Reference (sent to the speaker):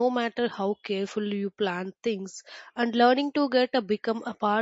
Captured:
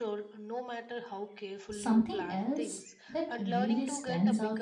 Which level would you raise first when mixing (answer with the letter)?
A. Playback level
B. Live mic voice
A